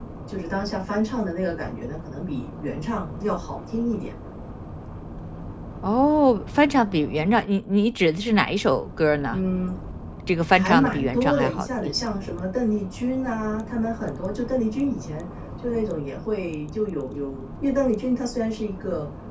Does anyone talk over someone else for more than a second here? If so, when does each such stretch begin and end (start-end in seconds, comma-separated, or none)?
10.6-11.9